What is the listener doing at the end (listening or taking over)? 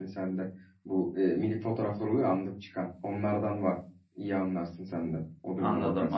taking over